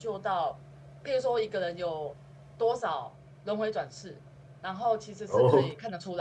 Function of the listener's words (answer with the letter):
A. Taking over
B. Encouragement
B